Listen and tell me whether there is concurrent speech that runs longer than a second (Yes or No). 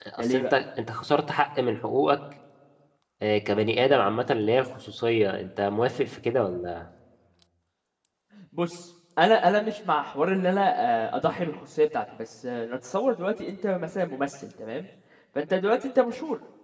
No